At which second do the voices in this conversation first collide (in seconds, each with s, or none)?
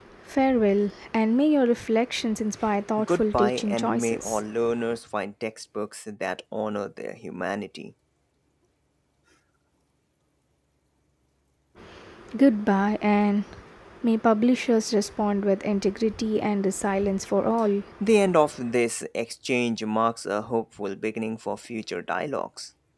3.0 s